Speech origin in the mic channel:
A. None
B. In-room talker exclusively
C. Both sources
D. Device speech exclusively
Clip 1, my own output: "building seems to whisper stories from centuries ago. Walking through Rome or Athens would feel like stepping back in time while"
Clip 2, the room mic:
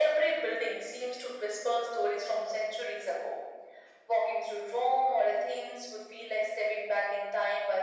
D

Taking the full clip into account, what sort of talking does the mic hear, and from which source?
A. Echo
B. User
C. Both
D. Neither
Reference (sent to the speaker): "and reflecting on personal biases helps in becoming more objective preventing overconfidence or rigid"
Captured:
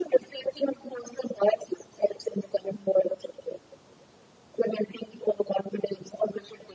A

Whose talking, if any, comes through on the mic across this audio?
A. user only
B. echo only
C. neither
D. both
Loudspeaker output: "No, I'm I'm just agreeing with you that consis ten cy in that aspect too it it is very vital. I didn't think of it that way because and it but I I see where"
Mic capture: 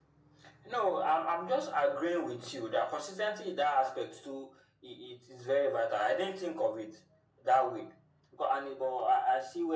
B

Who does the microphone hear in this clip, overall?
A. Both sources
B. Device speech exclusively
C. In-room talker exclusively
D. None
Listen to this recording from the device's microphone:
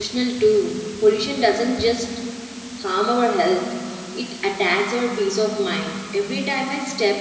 C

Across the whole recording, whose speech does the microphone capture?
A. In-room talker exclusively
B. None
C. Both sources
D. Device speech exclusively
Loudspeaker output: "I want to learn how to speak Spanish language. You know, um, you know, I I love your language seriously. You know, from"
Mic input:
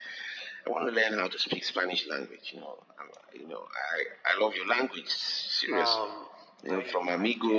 C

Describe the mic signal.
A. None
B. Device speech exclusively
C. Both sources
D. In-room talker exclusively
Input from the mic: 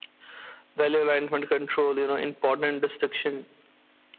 B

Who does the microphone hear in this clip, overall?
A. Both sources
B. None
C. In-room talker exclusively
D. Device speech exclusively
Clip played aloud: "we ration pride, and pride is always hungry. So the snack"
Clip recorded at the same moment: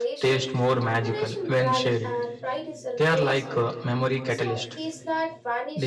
A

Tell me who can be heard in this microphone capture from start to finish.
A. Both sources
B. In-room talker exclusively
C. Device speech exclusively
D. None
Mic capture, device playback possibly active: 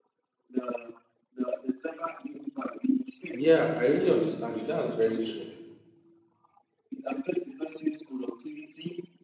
A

